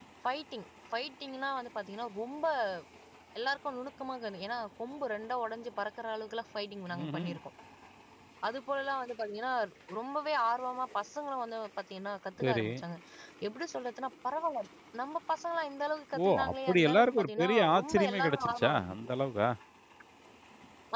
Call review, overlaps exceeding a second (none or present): present